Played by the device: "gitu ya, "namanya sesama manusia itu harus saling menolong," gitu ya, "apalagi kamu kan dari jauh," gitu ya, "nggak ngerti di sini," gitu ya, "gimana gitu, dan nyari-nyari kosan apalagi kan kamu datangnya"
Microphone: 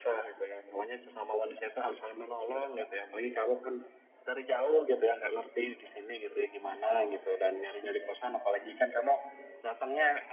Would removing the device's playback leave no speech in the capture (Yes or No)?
Yes